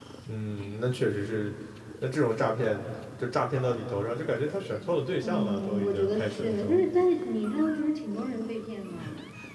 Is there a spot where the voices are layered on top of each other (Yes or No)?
Yes